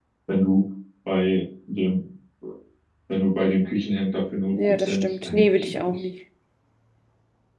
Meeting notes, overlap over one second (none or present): present